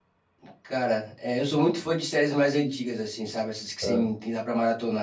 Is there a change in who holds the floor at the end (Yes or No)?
No